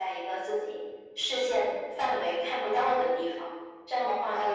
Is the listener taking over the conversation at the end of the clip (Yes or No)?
Yes